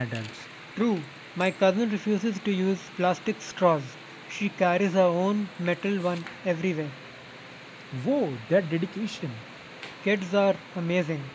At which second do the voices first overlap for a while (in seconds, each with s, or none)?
none